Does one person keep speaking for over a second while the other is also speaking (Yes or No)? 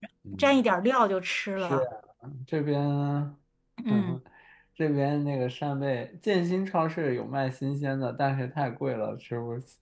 No